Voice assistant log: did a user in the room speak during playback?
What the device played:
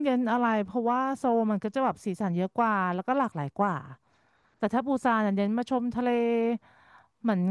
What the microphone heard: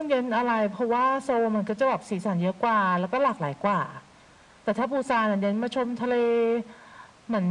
No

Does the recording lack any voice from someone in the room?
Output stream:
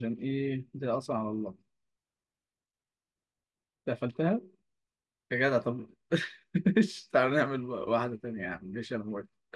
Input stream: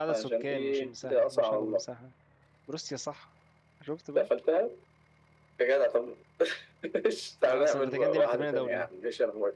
No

